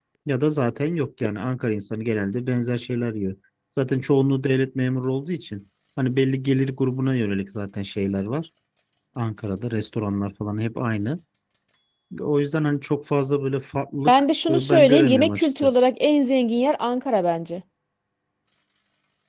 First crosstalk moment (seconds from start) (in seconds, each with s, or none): 14.1 s